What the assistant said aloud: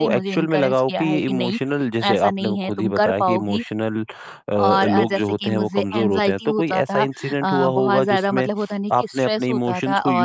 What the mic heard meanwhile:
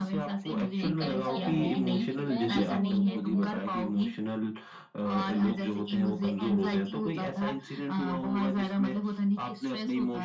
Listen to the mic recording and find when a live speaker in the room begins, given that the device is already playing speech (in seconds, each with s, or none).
0.8 s